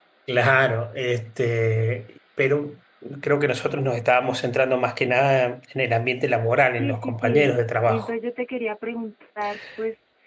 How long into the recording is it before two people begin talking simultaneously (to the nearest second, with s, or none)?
7 s